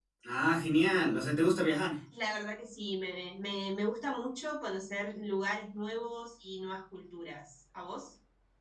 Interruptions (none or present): none